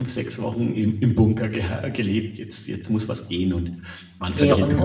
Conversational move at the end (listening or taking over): taking over